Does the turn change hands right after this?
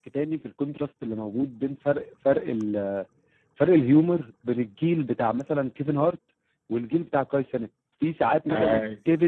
No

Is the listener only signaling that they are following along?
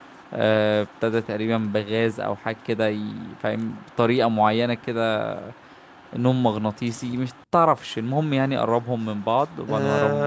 No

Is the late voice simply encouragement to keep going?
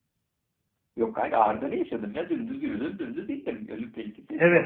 No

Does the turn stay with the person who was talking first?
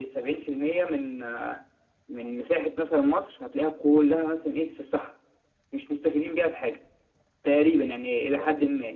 No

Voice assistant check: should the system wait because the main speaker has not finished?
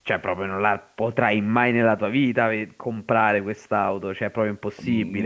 No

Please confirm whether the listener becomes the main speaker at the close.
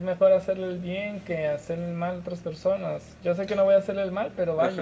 Yes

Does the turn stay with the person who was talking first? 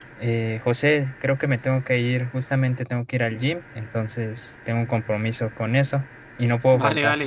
No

